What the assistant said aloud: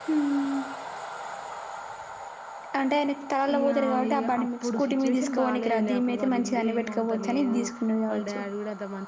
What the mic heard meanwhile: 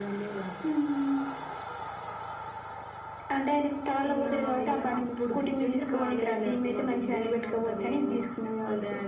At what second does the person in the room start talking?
none

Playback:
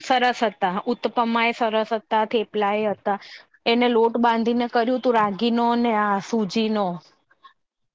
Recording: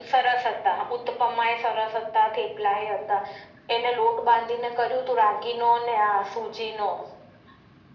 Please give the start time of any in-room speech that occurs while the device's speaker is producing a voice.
none

